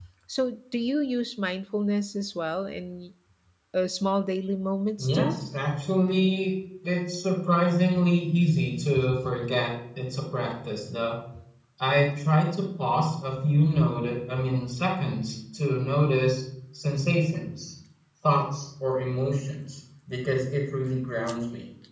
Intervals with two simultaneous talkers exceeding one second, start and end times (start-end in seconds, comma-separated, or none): none